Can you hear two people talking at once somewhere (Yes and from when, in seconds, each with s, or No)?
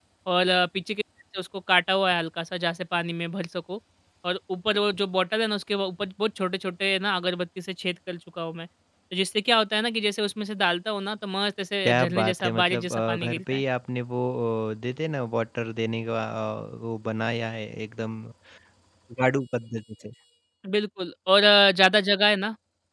Yes, from 11.8 s